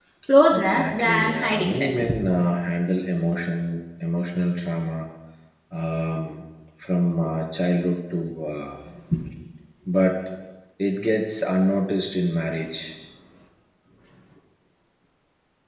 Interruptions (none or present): present